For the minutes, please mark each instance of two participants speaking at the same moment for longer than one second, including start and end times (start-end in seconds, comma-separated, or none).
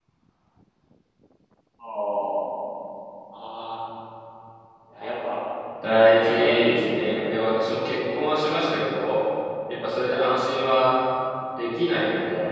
6.2-7.5